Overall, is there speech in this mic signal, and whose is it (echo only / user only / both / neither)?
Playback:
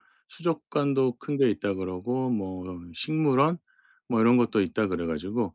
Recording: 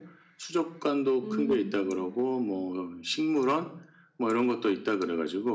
both